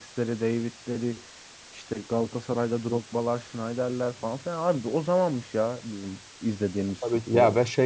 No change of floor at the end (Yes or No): No